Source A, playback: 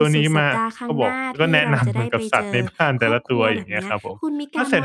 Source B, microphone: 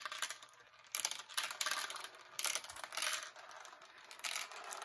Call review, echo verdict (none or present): none